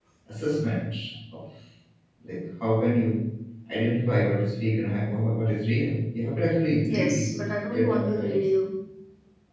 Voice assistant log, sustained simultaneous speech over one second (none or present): present